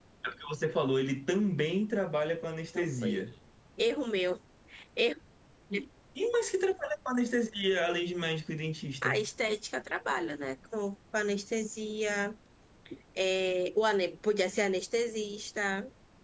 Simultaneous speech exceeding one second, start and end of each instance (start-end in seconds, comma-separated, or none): none